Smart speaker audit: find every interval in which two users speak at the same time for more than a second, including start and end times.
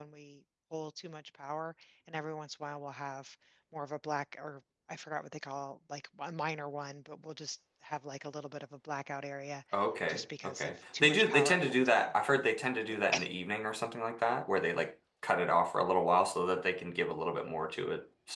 10.1-12.1

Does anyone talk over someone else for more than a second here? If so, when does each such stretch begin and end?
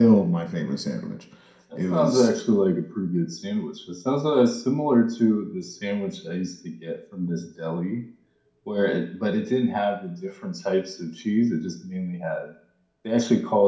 none

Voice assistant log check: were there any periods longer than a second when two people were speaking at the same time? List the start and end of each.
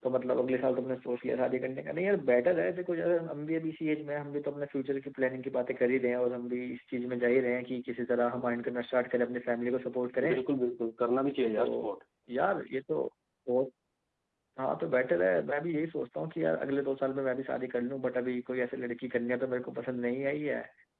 none

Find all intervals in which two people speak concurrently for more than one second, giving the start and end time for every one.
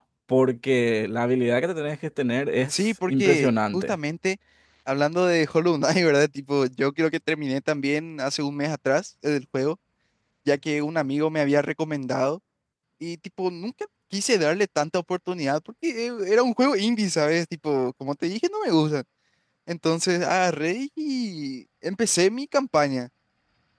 2.7-4.0

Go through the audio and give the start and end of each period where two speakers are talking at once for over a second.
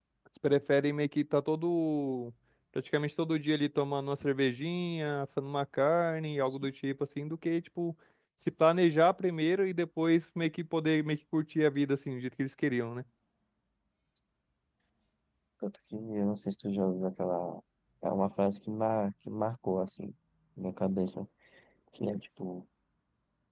none

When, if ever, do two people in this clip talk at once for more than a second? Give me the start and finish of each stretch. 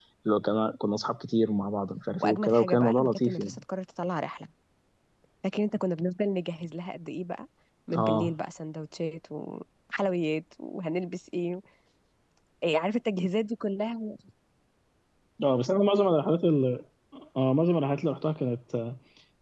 2.2-3.6

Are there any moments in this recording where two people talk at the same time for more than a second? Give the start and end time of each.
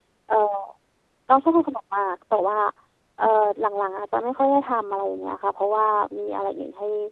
none

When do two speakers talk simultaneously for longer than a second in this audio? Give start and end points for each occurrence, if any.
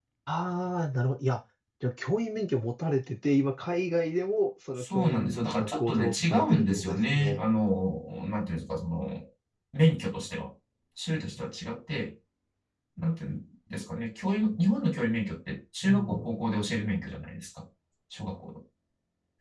4.8-7.4

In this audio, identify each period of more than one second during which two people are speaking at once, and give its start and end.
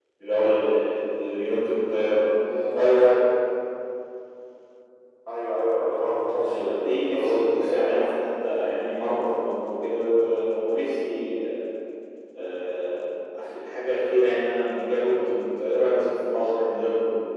6.5-8.1

